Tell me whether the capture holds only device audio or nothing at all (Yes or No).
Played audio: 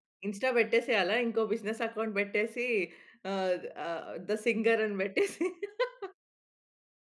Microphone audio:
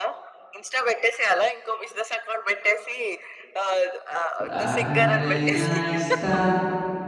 No